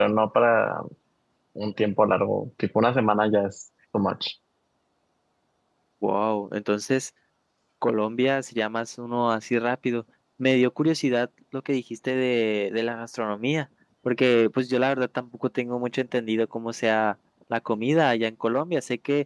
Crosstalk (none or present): none